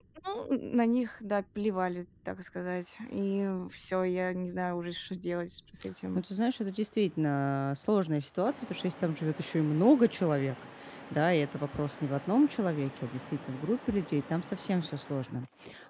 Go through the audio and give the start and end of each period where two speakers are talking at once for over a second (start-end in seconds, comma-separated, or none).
none